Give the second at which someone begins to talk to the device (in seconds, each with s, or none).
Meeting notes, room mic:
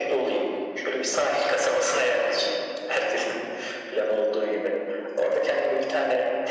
none